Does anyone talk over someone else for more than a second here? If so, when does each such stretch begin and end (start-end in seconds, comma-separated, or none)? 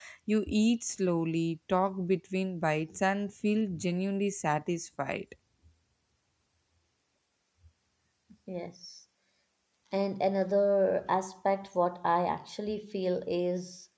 none